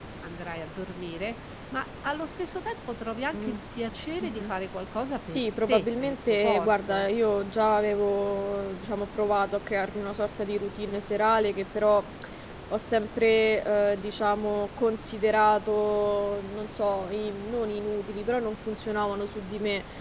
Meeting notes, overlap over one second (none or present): present